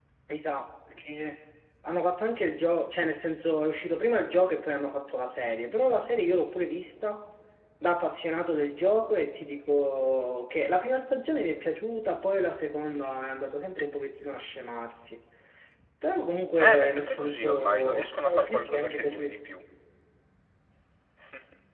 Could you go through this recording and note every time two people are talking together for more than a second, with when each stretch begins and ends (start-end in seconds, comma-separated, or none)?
16.6-19.4